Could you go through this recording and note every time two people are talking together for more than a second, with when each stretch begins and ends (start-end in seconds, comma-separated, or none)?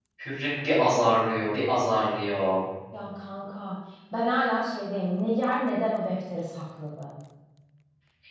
none